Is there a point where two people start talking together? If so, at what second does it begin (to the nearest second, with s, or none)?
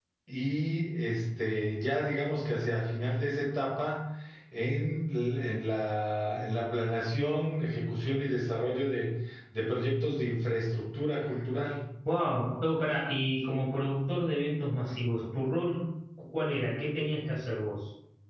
none